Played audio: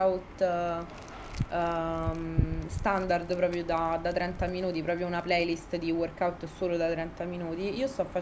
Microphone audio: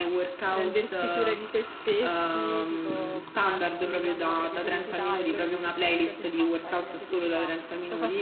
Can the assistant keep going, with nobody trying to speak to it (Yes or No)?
No